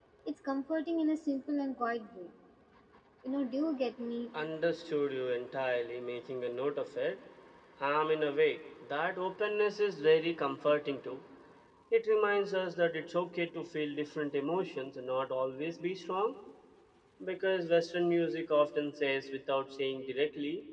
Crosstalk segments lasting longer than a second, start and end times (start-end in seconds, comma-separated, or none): none